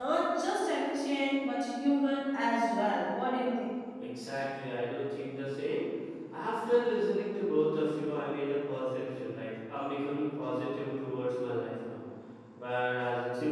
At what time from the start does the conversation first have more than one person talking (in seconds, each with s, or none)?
none